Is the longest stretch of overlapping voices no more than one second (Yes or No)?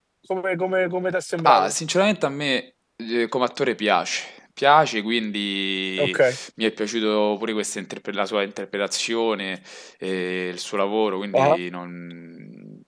Yes